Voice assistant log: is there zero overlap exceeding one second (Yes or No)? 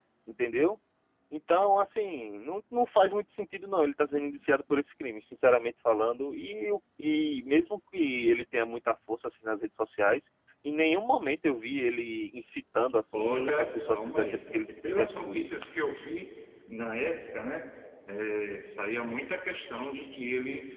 No